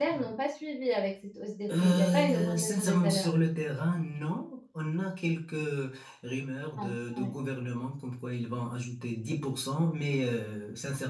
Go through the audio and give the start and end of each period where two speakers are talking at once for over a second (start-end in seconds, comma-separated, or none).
1.7-3.3